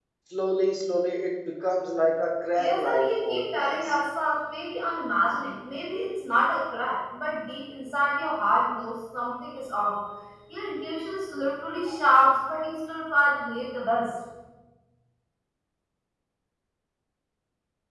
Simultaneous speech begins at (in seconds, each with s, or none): 2.6 s